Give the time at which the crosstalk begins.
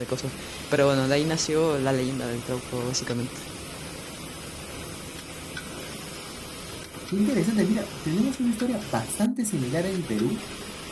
none

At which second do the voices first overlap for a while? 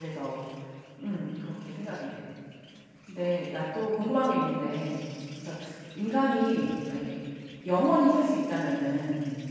none

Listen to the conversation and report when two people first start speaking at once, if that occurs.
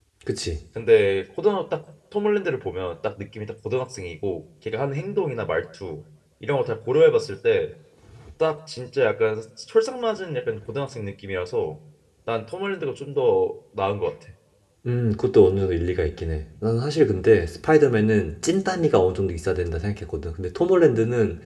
none

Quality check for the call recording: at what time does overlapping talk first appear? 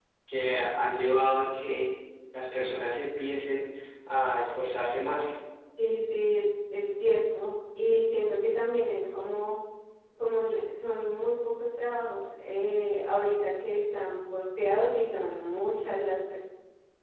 none

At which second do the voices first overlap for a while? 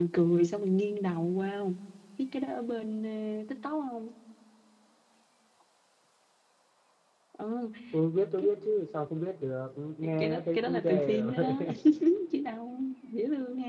10 s

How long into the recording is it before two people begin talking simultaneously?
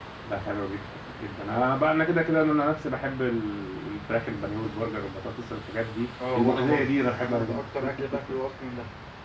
6 s

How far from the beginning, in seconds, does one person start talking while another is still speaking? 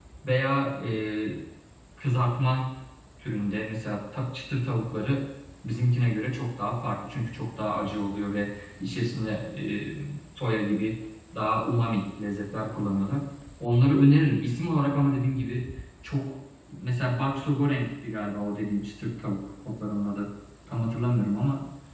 none

